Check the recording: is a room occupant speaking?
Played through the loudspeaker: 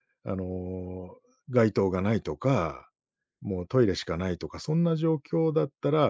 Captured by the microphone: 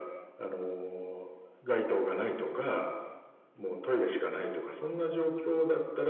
No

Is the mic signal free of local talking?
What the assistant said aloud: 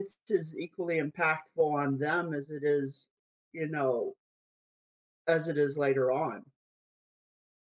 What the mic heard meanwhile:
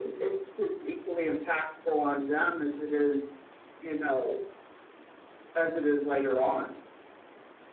Yes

